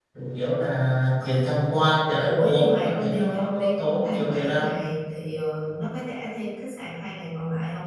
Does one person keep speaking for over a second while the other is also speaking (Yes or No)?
Yes